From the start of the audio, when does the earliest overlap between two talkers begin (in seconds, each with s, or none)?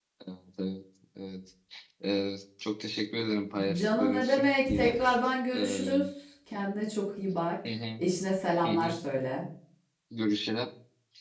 3.8 s